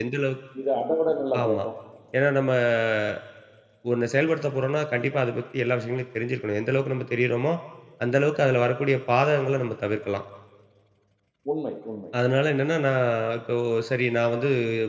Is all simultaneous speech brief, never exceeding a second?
Yes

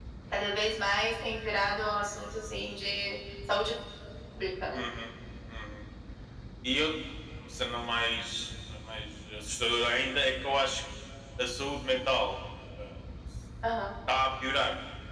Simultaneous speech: No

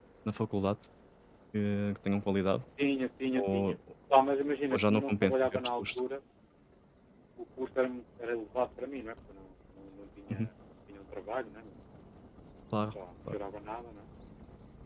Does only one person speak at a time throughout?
No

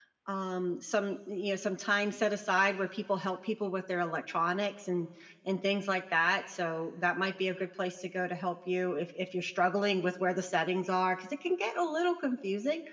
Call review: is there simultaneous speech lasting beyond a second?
No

